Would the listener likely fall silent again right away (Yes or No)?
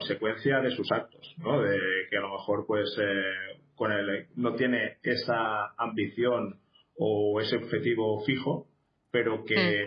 Yes